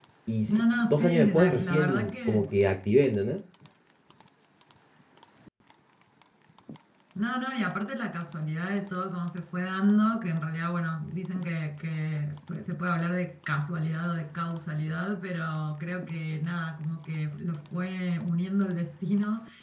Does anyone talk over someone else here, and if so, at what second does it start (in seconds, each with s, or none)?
0.5 s